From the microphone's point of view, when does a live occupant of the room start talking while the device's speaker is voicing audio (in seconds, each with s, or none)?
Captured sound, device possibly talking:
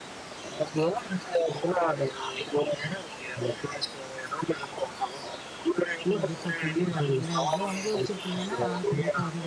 6.1 s